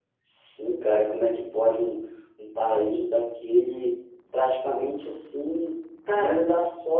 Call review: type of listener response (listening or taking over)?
listening